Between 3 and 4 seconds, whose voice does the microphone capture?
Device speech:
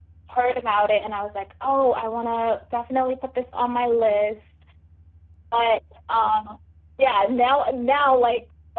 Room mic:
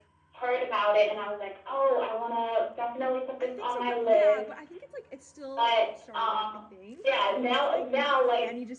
both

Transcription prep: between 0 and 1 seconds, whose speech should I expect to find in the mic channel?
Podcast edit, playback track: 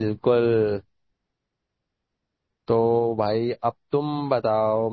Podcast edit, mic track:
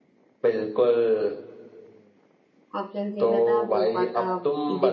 echo only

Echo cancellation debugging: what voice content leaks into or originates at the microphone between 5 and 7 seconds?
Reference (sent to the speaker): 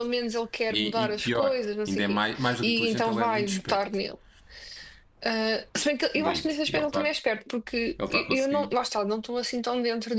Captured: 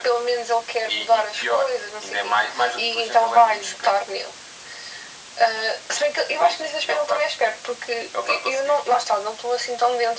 echo only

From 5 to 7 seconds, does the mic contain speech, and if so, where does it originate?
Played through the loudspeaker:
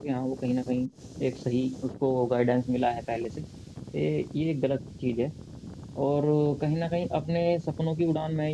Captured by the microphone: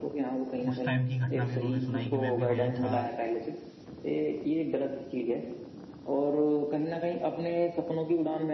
echo only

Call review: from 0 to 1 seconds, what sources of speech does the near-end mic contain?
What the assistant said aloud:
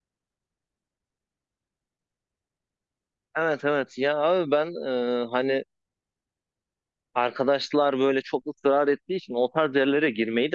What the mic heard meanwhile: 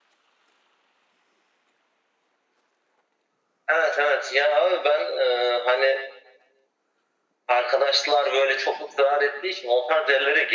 neither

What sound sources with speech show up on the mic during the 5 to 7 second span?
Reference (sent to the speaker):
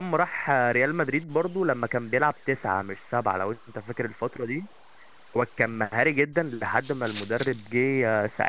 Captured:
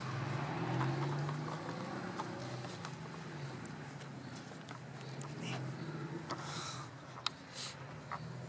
neither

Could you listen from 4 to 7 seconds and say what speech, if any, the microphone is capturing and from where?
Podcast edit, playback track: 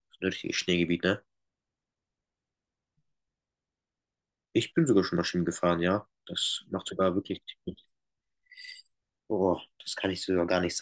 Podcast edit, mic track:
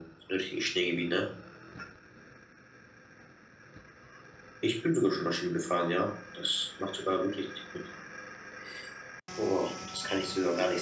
echo only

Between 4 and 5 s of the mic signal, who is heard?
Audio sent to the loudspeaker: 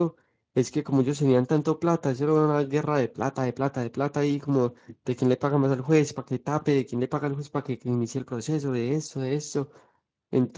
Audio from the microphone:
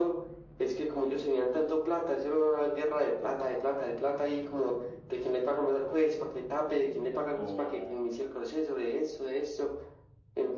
echo only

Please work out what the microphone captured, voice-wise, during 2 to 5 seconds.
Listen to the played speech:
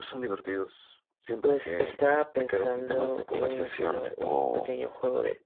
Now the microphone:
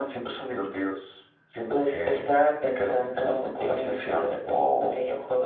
echo only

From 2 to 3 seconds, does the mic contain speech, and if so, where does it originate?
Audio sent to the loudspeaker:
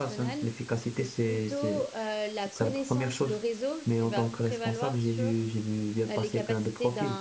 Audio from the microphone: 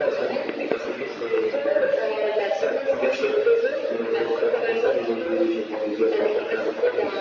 echo only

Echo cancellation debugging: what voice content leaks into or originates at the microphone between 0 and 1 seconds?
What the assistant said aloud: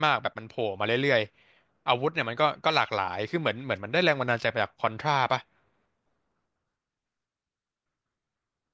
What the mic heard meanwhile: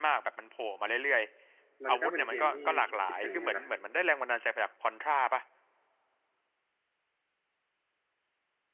echo only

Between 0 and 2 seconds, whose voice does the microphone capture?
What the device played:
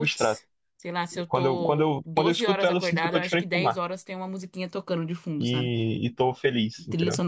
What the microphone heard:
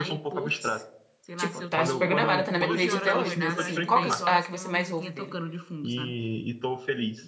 both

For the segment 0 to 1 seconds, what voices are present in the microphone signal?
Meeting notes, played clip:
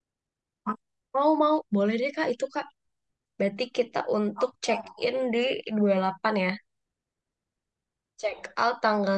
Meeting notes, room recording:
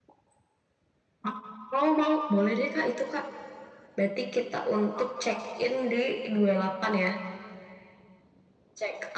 neither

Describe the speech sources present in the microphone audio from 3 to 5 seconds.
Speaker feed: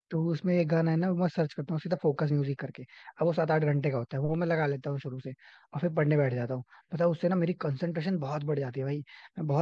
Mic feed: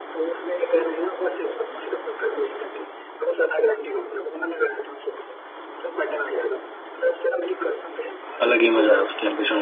echo only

